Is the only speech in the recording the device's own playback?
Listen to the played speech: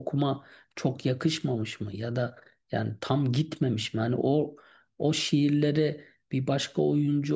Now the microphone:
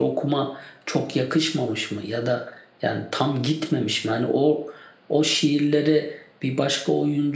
Yes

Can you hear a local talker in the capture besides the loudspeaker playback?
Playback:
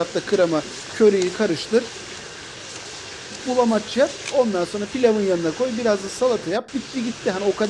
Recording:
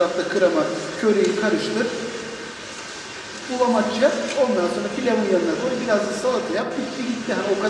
No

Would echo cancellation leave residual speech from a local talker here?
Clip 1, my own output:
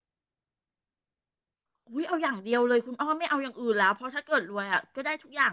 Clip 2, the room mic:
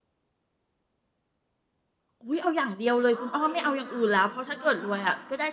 Yes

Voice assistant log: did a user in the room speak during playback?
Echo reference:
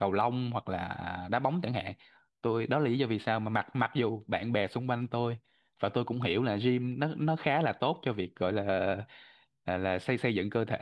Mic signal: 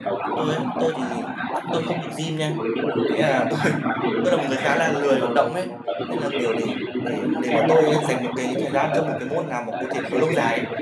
Yes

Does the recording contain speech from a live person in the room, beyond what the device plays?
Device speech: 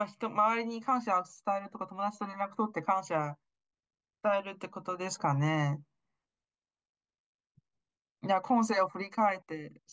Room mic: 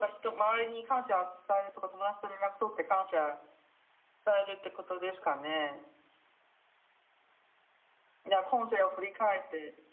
No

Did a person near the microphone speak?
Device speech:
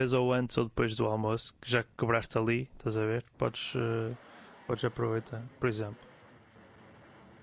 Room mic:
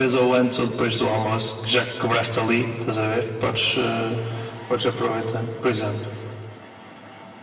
No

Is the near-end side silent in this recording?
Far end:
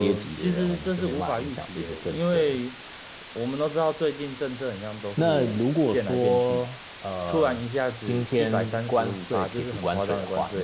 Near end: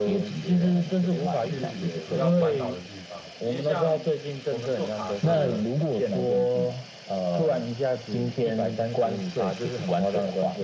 No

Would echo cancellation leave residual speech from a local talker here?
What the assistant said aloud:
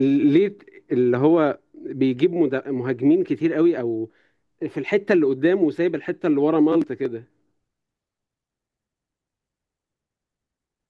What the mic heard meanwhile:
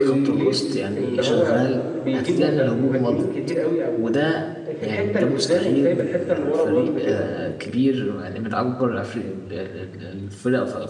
Yes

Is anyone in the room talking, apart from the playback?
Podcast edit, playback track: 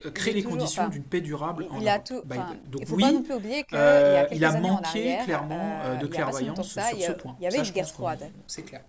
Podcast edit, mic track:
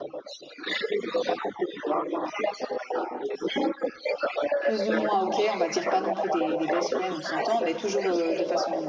Yes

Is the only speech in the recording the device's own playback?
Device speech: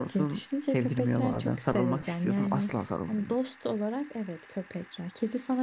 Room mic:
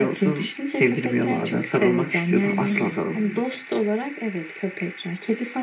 No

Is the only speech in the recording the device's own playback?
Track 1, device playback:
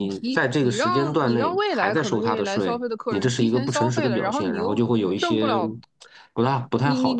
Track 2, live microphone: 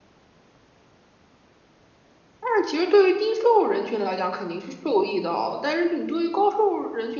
No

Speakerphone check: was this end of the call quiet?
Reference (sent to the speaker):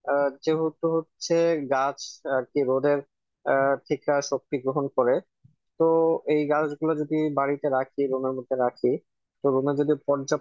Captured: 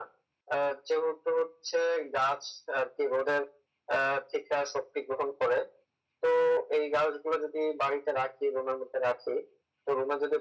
Yes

